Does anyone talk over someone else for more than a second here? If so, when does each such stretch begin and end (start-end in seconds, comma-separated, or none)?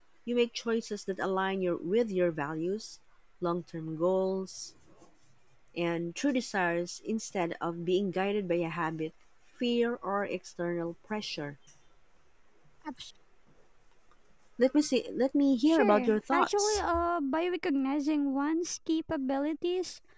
15.7-16.9